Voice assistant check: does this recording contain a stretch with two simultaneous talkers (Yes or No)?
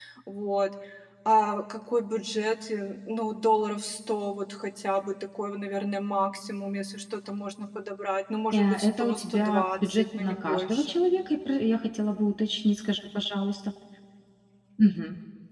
Yes